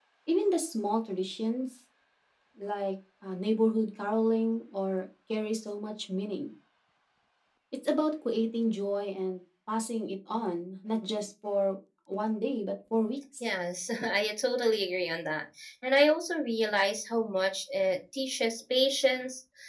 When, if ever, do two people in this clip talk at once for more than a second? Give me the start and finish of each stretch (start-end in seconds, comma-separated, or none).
none